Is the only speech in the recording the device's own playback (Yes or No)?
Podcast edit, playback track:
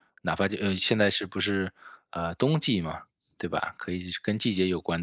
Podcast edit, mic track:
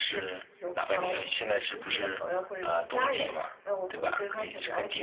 No